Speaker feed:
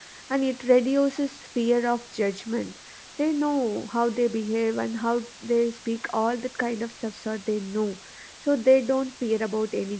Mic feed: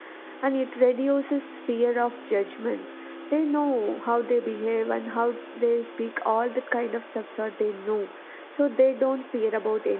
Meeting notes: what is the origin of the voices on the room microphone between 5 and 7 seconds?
echo only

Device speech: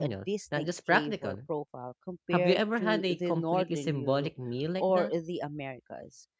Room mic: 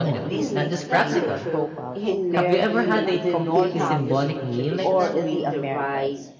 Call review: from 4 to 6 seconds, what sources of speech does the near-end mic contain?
both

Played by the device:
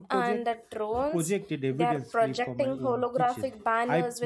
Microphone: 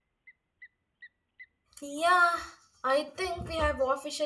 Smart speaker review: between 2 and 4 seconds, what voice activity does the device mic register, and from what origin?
user only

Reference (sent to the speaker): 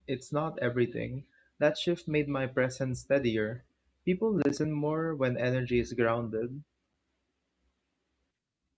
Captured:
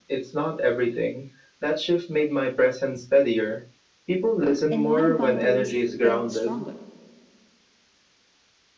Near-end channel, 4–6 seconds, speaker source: both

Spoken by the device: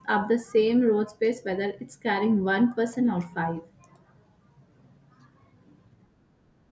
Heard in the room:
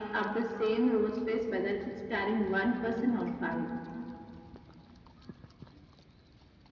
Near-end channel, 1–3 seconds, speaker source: echo only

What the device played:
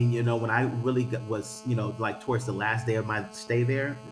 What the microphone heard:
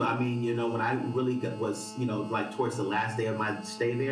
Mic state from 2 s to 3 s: echo only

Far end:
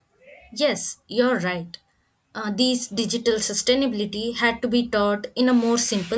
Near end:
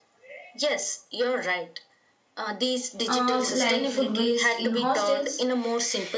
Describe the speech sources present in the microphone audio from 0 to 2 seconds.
echo only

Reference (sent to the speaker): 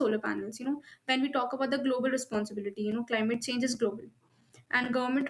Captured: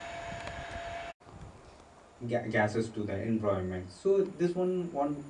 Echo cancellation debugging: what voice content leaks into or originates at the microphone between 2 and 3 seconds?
user only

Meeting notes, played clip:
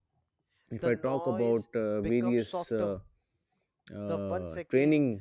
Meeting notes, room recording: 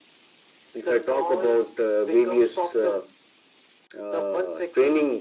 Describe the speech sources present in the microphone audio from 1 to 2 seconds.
echo only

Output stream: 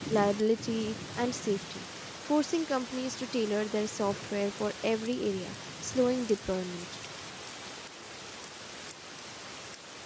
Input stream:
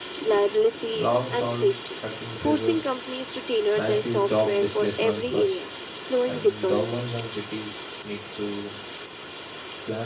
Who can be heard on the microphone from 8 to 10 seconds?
user only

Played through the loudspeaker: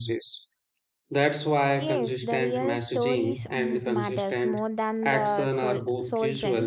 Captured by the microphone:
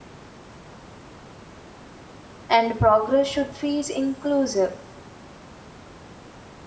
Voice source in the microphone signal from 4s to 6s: user only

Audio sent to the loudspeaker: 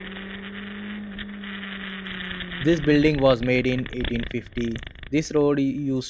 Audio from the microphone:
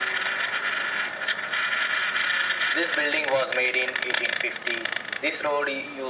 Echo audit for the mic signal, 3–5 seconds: echo only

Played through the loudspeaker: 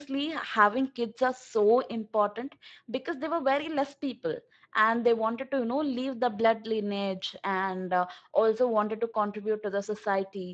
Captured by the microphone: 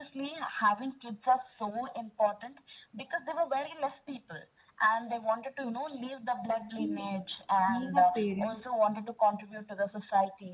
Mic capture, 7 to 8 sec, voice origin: both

